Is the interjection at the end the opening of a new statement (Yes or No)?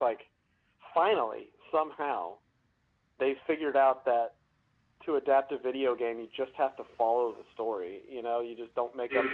No